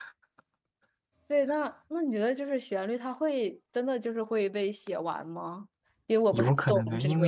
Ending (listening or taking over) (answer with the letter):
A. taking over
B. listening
A